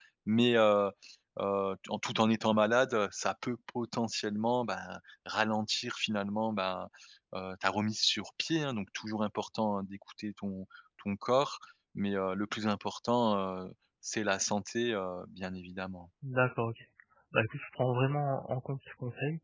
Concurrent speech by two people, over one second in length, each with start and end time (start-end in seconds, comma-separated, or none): none